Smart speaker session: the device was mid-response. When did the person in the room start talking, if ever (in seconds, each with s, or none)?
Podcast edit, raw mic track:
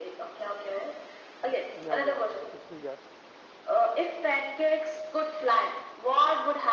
1.8 s